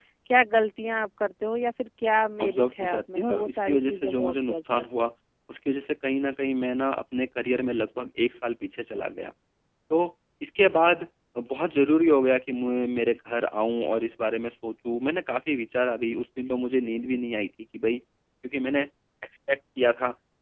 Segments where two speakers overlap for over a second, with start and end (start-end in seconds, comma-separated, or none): 2.4-5.1